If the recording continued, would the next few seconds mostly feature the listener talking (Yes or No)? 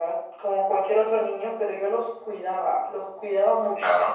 No